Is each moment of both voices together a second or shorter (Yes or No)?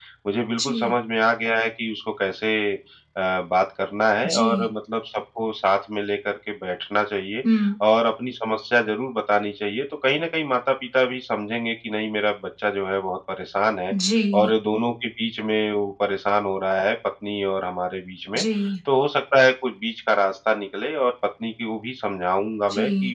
Yes